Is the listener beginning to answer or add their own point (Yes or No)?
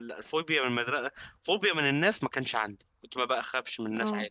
No